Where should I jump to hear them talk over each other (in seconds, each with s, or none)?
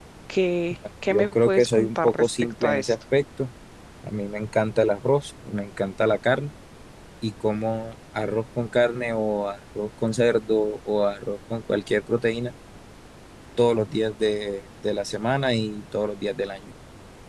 1.1 s